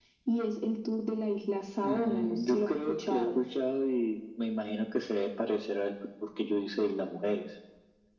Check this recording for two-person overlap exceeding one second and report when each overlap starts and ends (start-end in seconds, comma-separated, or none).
1.8-3.4